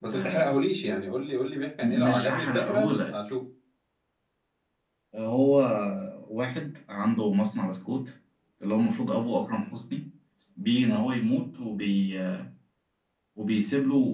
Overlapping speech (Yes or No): Yes